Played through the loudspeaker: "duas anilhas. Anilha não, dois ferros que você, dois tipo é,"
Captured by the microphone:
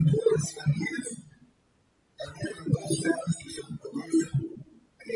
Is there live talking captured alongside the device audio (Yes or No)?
No